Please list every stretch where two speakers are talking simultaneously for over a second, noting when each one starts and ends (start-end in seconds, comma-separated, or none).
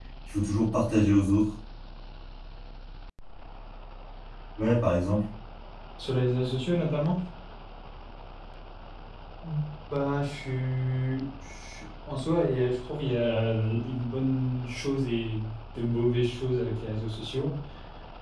none